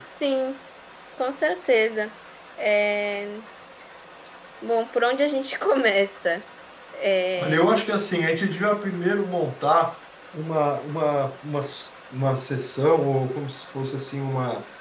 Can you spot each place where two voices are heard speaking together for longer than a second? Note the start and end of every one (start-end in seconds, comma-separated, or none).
none